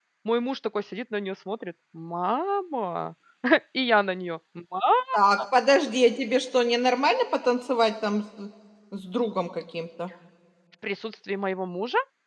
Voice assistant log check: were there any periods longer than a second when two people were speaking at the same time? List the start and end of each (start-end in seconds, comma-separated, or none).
none